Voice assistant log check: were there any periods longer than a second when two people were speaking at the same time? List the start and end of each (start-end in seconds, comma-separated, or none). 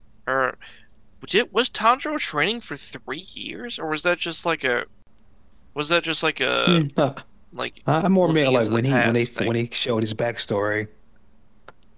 8.2-9.5